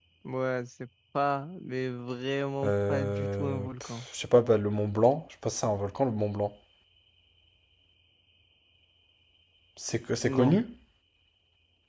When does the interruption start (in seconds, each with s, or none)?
2.6 s